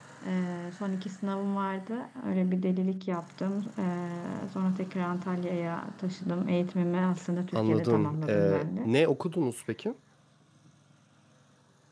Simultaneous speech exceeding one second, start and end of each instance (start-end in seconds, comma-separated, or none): 7.6-8.9